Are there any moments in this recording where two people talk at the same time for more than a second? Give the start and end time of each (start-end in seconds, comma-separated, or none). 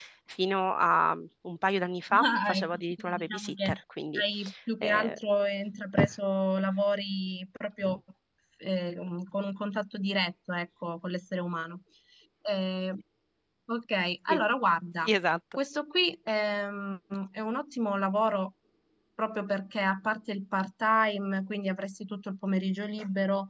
2.2-3.7